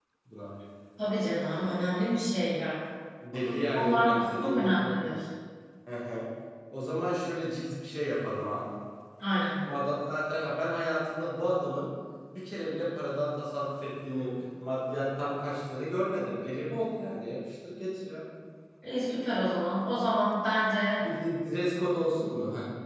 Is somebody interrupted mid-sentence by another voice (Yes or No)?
Yes